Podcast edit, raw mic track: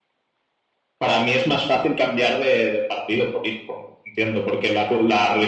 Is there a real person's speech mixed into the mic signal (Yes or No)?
No